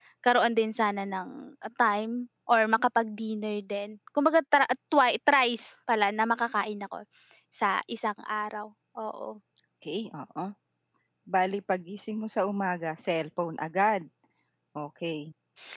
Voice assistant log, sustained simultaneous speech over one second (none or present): none